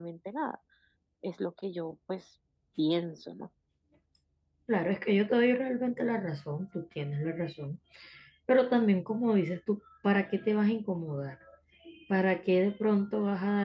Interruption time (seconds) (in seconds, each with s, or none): none